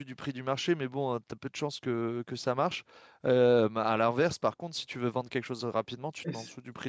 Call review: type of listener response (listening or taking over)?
taking over